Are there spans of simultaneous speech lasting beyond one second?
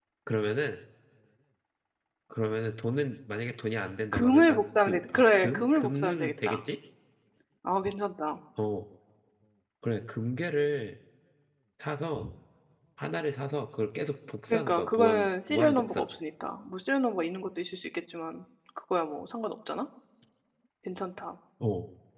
Yes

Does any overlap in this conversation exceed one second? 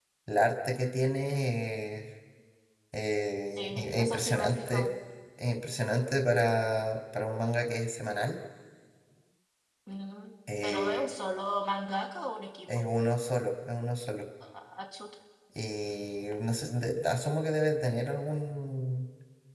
Yes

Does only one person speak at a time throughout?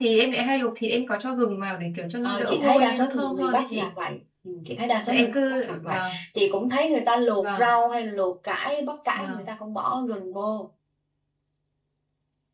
No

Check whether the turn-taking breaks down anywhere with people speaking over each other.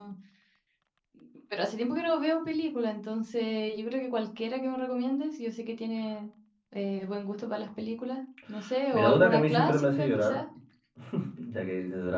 Yes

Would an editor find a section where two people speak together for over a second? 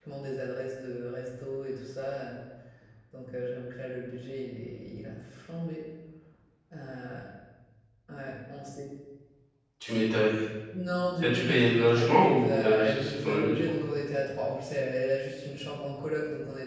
Yes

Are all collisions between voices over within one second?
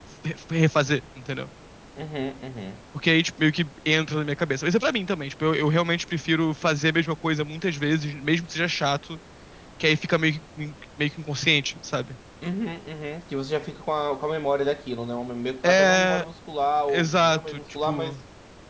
No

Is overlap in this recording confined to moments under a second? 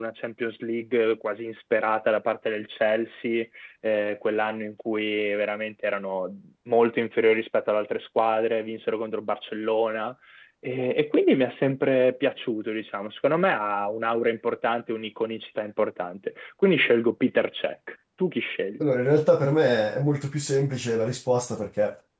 Yes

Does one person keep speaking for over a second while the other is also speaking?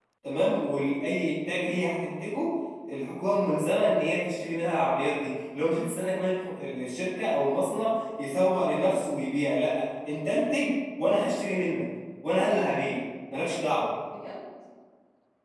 No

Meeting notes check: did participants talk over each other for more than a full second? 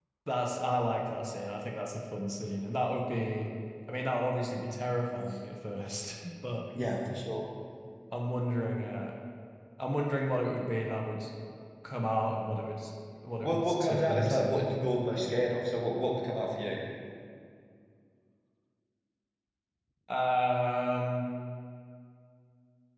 Yes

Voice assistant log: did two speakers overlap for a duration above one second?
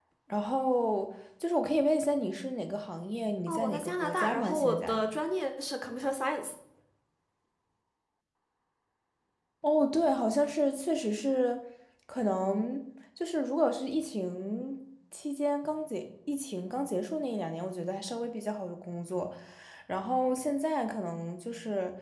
Yes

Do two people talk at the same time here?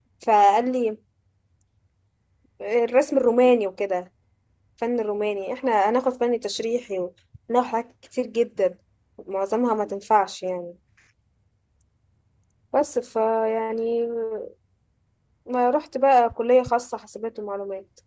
No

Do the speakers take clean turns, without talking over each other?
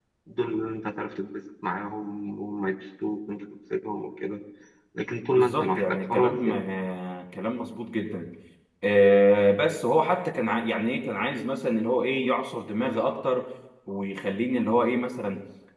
No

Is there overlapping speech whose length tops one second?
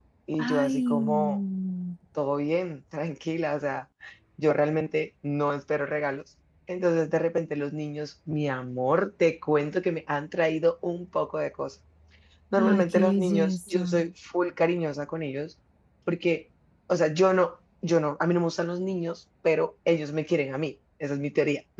Yes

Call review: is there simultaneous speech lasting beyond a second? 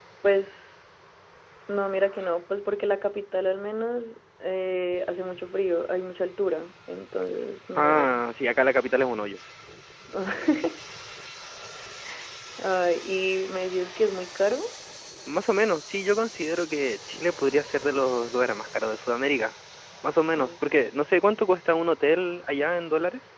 No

